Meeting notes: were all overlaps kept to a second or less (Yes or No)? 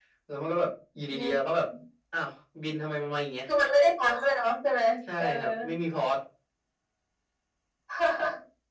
Yes